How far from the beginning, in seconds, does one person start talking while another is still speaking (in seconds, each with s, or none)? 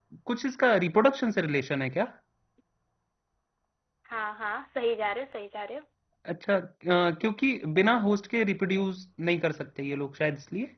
none